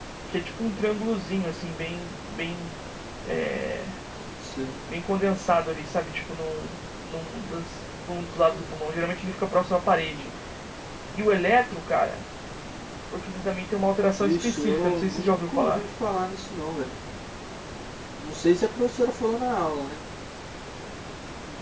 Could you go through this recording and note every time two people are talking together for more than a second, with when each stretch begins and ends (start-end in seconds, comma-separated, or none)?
14.2-15.8